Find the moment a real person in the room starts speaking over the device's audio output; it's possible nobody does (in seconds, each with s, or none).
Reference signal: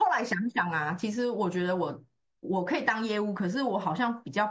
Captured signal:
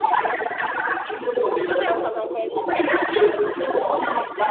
1.6 s